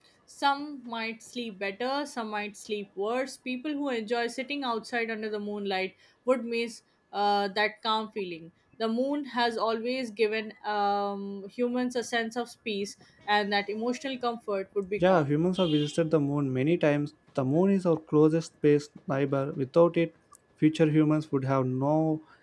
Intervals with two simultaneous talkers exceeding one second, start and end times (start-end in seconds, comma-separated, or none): none